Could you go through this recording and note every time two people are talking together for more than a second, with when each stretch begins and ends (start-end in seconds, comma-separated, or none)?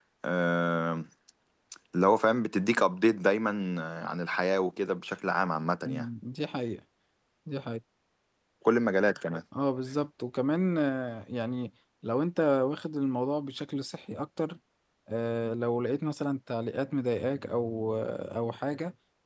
none